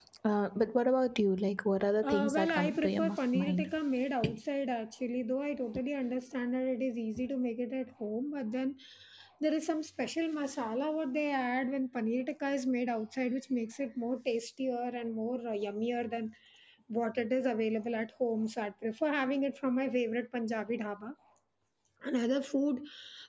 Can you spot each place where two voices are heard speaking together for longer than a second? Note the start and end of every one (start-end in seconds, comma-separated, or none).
2.0-3.7